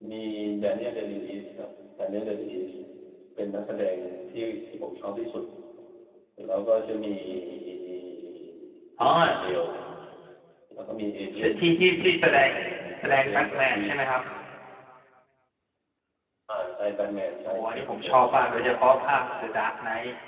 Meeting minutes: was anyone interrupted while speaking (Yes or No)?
Yes